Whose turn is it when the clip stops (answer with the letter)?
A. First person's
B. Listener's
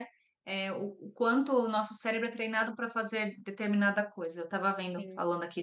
A